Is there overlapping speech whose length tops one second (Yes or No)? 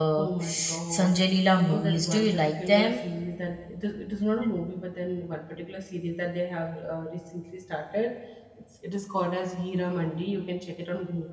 Yes